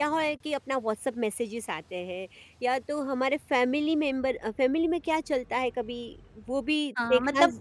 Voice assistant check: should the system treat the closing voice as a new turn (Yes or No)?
Yes